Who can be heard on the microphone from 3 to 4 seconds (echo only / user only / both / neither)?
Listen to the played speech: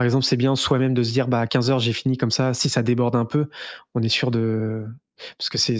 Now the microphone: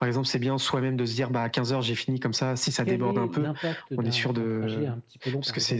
both